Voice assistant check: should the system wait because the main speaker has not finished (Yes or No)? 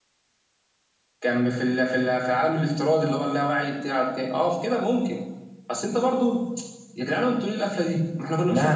No